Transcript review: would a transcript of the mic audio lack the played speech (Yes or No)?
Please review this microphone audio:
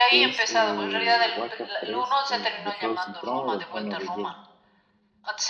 No